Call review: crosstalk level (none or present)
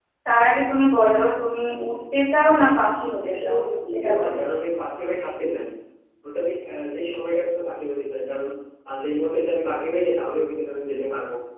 present